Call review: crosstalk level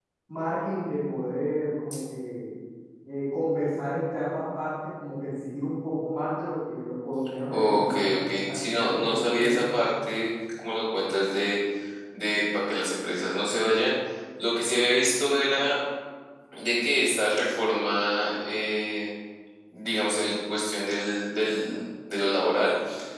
present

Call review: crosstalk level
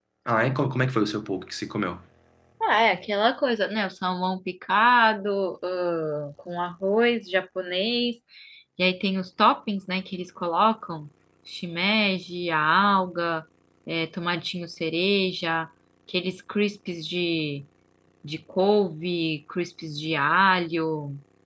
none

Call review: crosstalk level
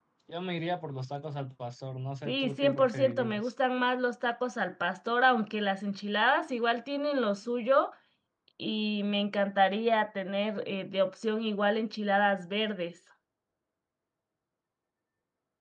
present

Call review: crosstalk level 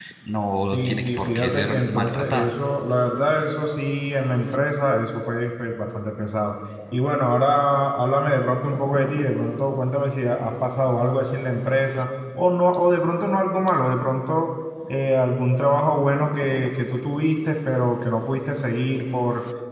present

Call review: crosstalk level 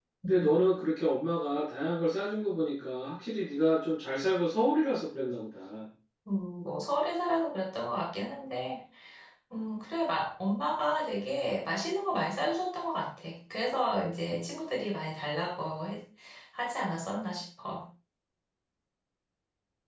none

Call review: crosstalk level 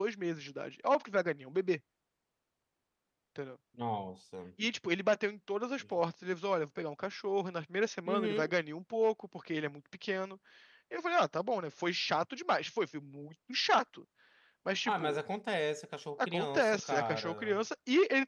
present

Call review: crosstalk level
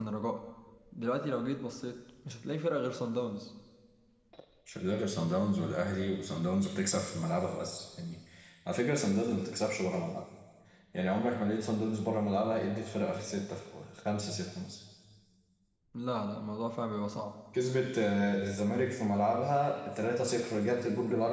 none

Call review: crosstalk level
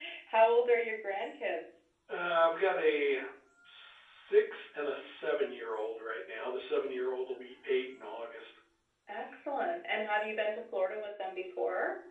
none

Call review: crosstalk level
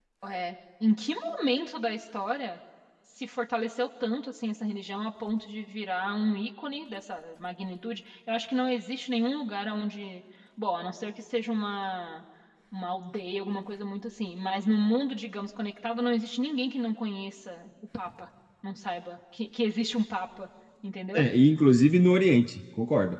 none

